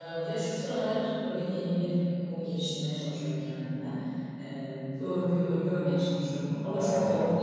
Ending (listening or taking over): listening